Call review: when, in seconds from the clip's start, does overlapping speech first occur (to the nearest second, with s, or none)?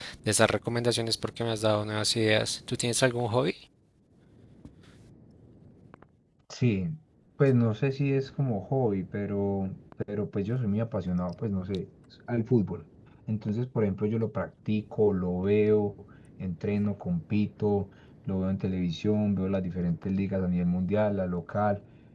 none